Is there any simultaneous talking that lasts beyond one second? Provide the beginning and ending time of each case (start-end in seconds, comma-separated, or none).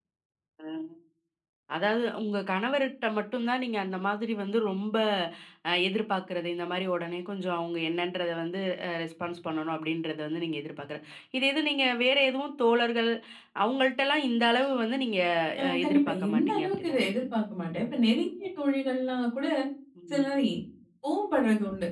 15.7-17.1